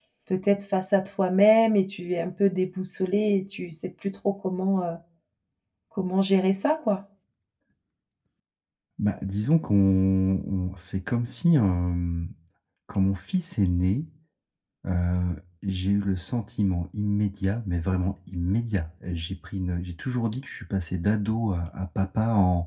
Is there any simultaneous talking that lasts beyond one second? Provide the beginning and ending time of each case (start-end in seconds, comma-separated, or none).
none